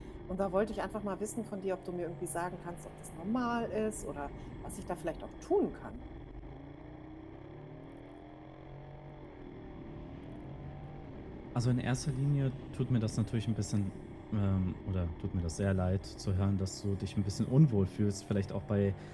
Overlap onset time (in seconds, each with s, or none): none